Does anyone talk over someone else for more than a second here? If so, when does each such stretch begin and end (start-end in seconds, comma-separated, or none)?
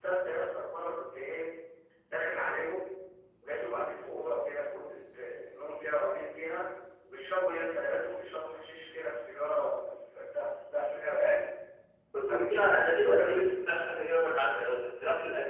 12.3-13.5